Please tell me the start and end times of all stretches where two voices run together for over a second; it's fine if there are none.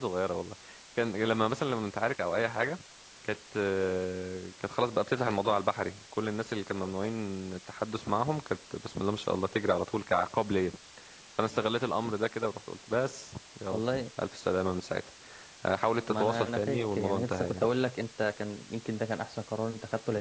16.1-17.7

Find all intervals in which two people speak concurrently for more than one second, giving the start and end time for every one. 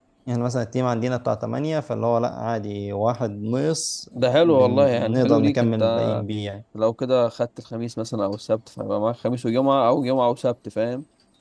4.4-6.1

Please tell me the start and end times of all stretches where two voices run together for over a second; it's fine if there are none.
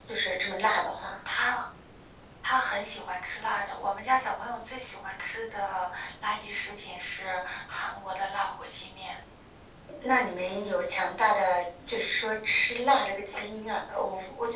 none

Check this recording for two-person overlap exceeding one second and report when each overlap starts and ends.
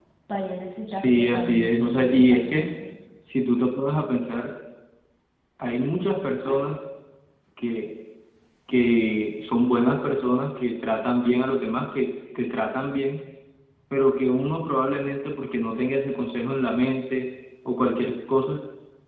0.9-2.7

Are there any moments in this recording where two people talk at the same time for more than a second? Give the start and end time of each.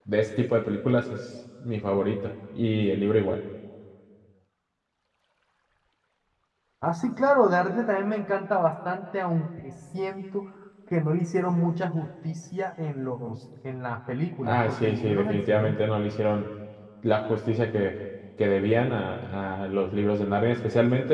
14.4-16.0

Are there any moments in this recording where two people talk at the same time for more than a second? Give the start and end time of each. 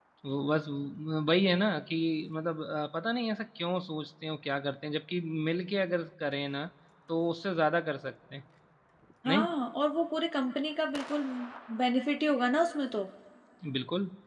none

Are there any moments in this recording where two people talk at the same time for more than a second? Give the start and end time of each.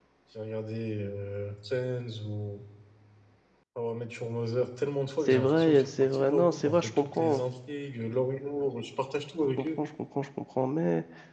5.3-7.4

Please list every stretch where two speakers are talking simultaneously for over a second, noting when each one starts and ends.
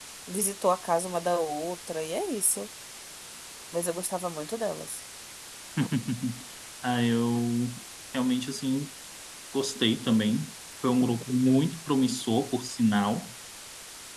none

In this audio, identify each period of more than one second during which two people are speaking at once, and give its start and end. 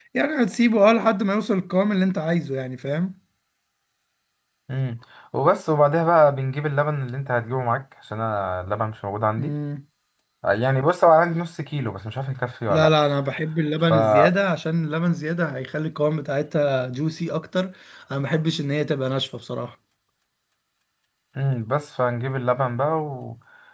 none

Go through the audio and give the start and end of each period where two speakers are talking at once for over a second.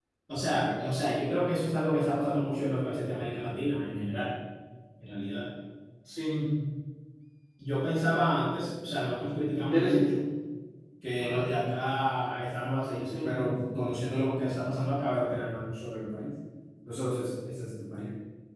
none

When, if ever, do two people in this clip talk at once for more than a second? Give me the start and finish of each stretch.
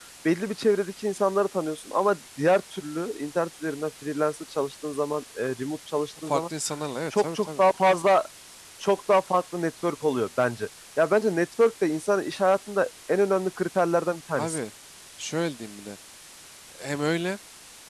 none

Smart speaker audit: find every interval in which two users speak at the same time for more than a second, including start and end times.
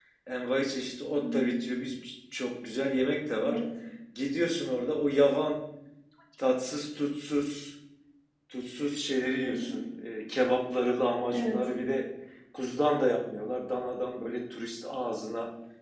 none

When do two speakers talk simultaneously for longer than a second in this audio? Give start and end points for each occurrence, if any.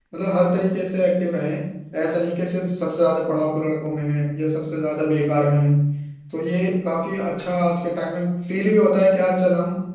none

